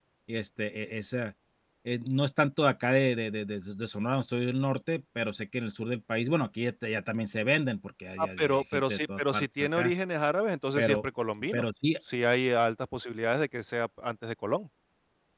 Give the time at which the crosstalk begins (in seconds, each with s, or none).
8.2 s